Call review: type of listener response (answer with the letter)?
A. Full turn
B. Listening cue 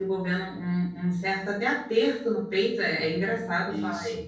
A